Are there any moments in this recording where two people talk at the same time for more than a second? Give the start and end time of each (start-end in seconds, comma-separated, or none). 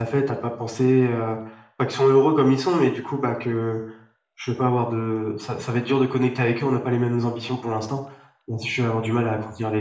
none